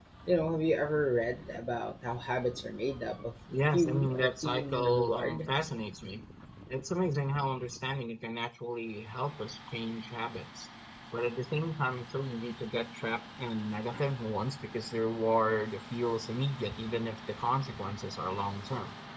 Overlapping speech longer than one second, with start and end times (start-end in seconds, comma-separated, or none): 3.7-5.5